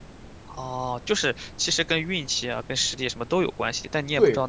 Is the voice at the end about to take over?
Yes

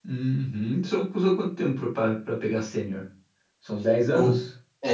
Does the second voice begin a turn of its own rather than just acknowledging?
Yes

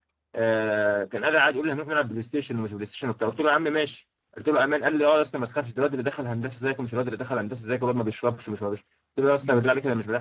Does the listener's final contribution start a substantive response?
No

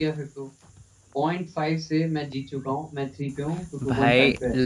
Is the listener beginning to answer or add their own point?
Yes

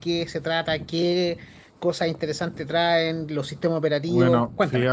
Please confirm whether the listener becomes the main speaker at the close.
Yes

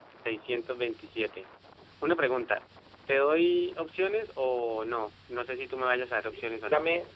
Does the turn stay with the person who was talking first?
No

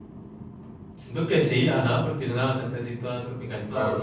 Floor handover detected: Yes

